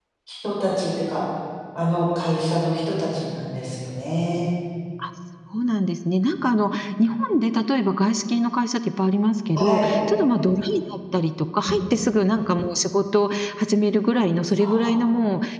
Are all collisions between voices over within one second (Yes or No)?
Yes